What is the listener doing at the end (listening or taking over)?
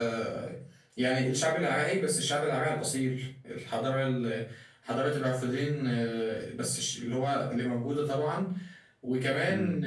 listening